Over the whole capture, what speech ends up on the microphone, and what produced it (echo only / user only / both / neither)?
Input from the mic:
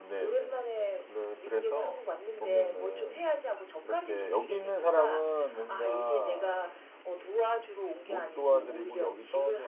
both